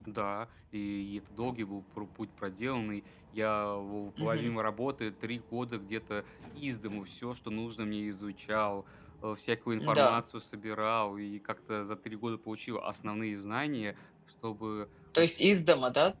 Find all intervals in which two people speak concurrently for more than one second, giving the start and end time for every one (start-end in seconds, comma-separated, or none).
none